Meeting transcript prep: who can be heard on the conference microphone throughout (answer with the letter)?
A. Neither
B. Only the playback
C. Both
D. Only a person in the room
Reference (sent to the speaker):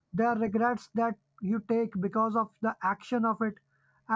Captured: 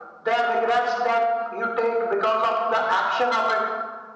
B